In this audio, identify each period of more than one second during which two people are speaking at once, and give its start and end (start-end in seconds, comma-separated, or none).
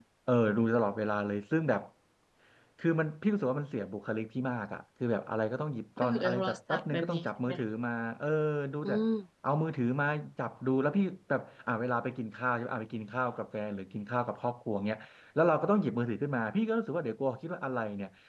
6.0-7.5